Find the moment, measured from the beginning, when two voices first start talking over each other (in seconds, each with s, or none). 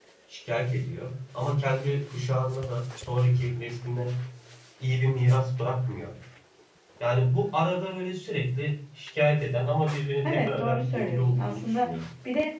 10.2 s